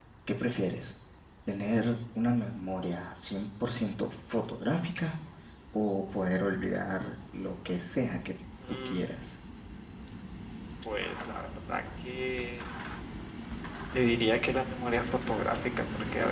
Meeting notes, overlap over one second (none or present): none